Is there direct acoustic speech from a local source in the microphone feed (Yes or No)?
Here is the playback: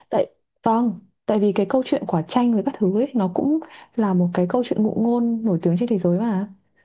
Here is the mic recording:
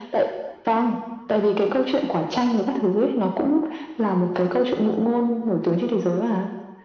No